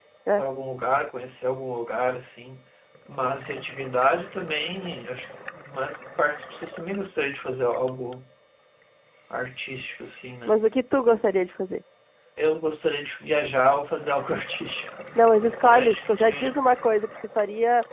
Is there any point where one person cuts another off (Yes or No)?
Yes